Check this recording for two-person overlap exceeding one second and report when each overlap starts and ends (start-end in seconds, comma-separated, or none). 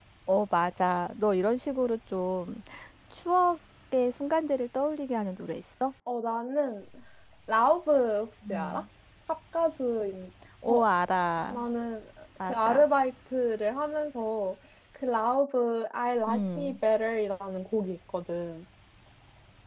none